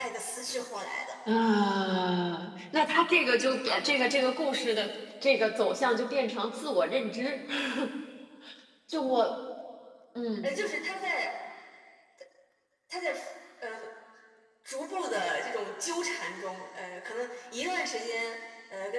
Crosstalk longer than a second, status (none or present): none